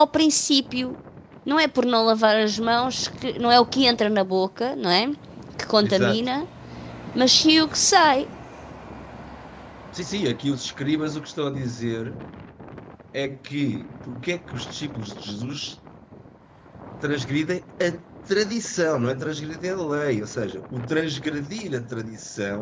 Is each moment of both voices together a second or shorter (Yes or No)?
Yes